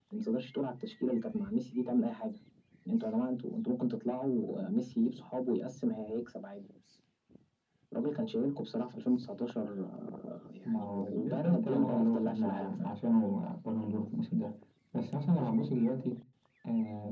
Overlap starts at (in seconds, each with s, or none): 10.7 s